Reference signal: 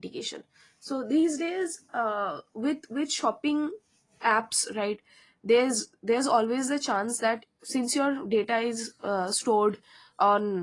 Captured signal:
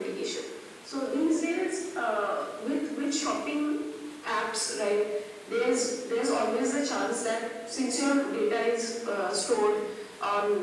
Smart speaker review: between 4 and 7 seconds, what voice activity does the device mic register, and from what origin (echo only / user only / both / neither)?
echo only